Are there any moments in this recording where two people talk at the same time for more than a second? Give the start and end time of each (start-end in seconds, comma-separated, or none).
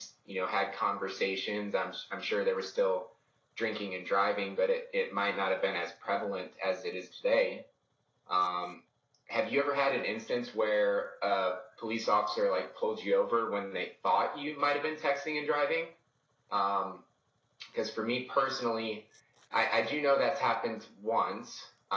none